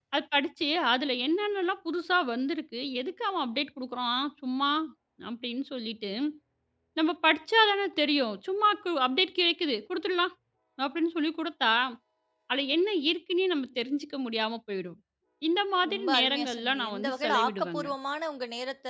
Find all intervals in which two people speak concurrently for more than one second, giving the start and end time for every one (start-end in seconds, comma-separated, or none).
15.9-17.9